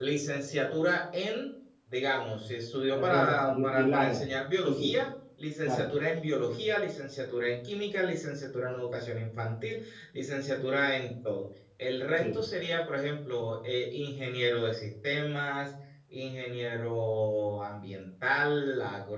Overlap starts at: 2.9 s

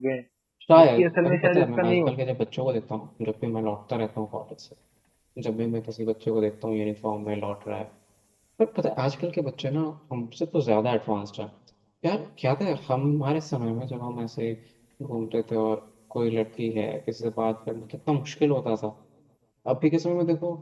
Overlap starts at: 0.8 s

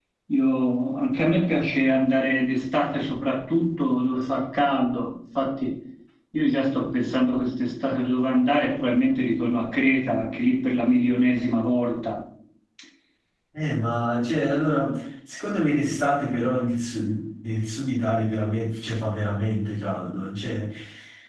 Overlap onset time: none

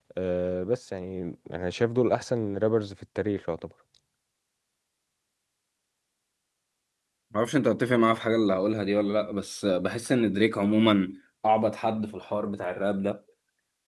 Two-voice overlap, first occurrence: none

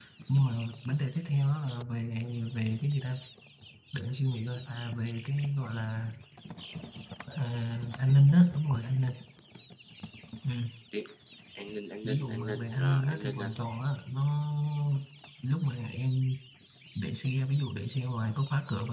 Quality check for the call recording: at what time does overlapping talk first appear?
12.0 s

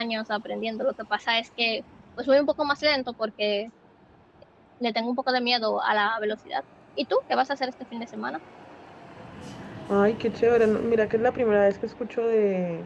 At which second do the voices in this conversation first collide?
none

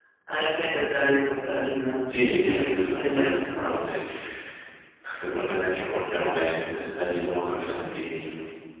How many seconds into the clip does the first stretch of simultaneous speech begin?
2.1 s

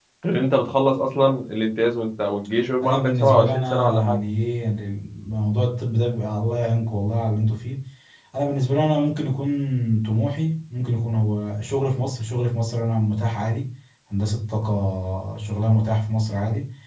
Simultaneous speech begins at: 2.8 s

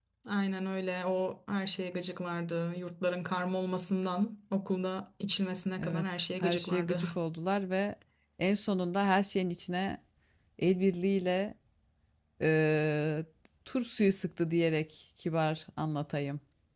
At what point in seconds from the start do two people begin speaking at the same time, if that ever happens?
5.8 s

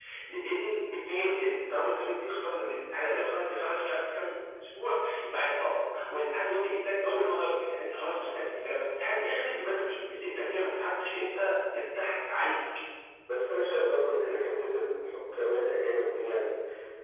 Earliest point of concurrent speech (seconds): none

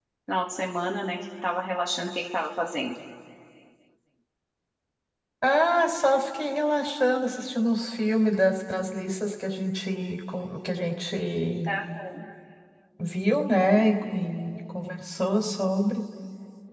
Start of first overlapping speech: none

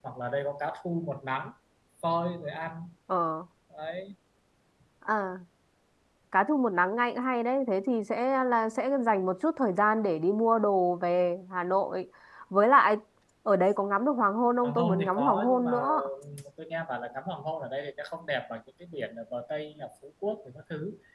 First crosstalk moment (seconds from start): 14.6 s

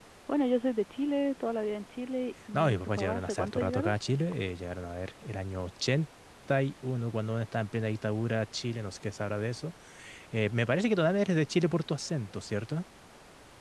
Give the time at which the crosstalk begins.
2.5 s

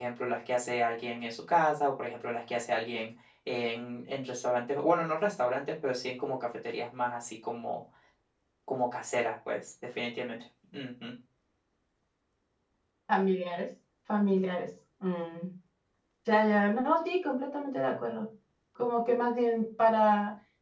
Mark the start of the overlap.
none

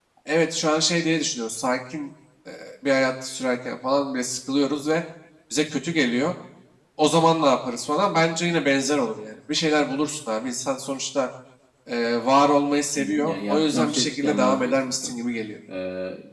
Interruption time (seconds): 13.0 s

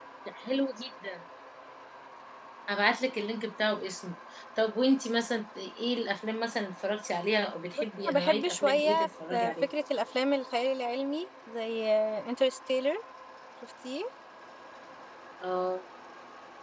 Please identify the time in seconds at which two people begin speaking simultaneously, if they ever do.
7.8 s

